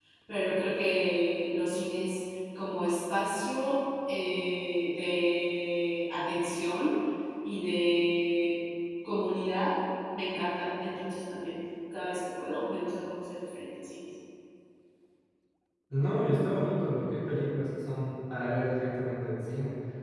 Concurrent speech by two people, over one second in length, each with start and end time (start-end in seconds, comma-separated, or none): none